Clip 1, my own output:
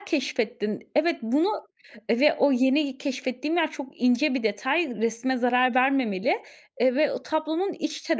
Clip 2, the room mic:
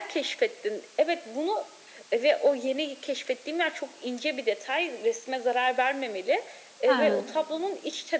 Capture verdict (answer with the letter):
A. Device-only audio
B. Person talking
B